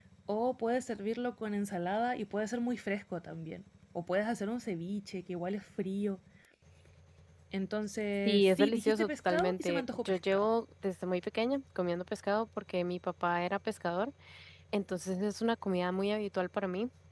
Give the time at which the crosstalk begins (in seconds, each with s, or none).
8.2 s